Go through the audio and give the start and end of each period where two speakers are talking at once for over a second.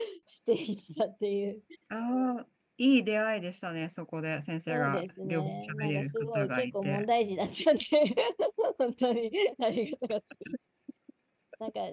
4.7-7.0

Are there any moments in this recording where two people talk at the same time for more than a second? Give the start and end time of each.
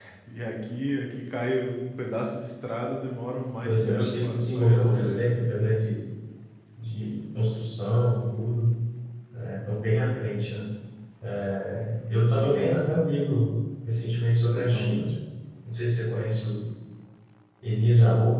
3.6-5.3

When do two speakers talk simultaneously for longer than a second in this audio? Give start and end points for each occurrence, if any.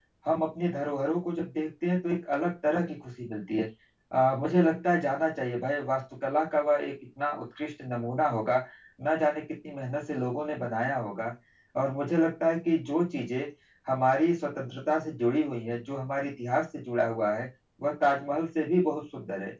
none

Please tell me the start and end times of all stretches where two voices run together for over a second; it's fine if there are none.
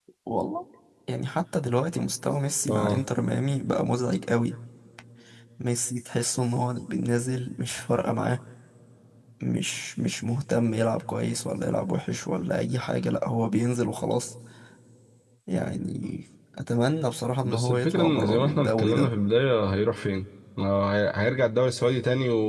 17.4-19.1

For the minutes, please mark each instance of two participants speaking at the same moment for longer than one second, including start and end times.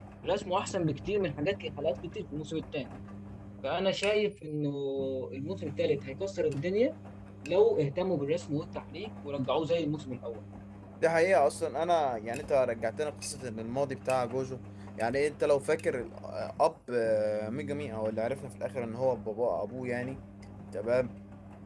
none

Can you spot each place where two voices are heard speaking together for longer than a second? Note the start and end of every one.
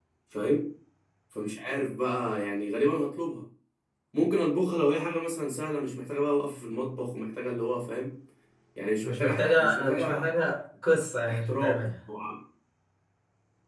9.0-10.3

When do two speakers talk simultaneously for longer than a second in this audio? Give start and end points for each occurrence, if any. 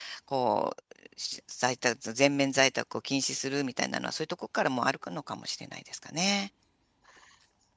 none

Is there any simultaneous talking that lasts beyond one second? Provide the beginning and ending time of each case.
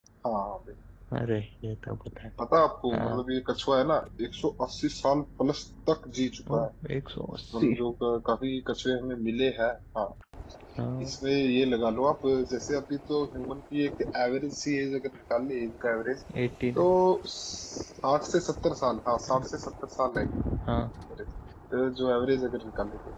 none

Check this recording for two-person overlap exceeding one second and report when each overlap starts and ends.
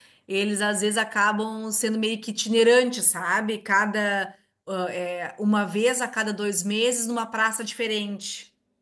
none

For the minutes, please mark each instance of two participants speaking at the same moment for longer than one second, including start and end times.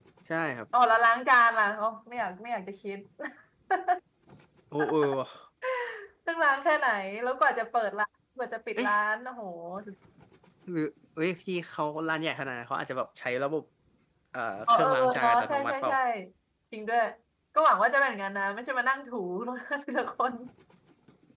14.7-15.9

